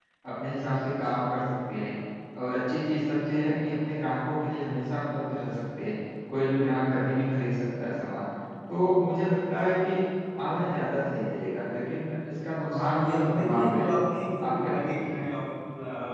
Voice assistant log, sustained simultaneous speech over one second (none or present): present